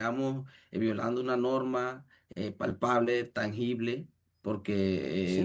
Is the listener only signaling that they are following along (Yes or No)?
No